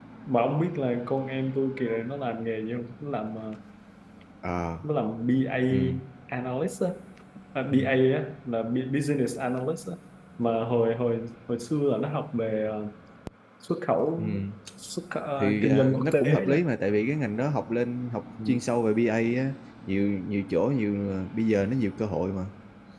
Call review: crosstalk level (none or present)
present